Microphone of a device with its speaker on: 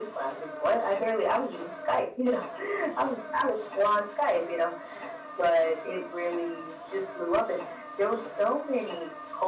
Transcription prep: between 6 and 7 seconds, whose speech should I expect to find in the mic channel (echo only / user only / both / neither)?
echo only